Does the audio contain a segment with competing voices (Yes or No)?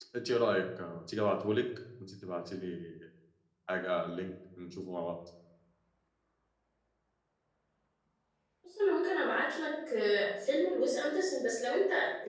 No